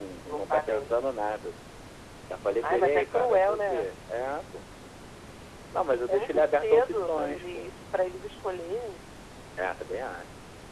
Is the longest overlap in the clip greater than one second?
Yes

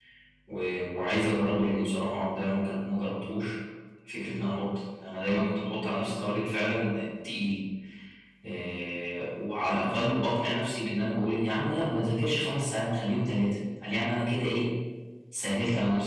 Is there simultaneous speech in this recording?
No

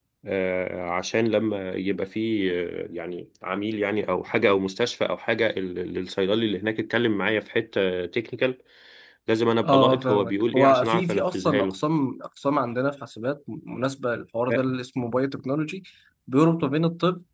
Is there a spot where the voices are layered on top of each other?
Yes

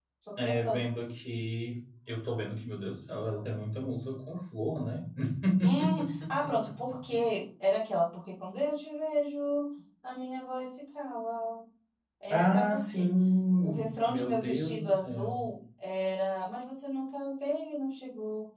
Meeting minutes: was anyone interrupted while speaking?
Yes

